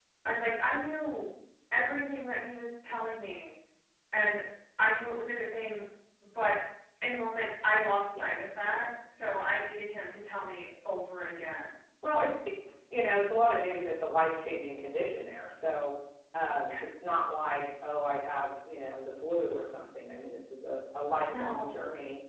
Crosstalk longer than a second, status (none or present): none